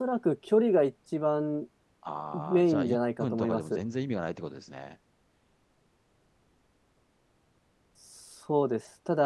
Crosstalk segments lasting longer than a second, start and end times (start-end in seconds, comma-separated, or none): 2.3-3.8